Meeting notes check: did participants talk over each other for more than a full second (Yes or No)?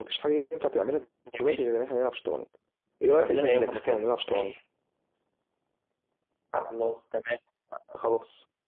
Yes